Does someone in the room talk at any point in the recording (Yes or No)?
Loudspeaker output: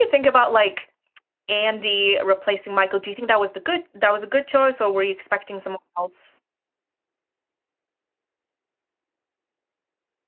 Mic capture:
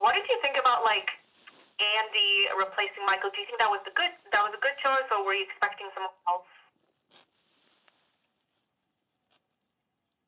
No